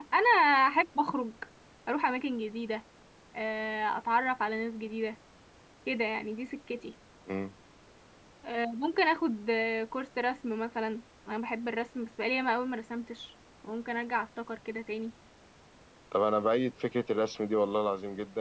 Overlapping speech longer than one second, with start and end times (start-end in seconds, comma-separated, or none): none